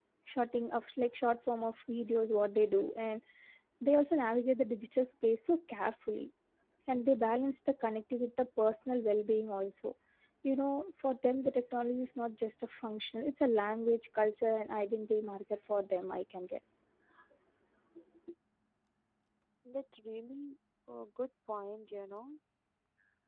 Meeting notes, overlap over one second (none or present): none